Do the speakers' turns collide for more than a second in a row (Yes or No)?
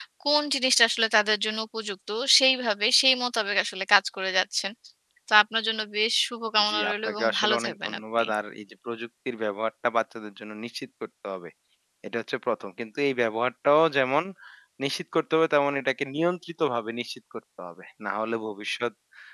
Yes